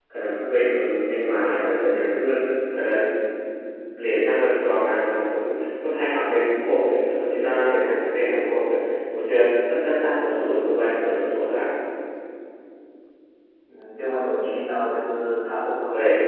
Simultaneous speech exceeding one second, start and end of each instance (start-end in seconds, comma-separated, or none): none